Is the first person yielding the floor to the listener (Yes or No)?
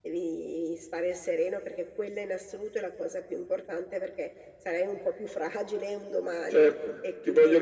Yes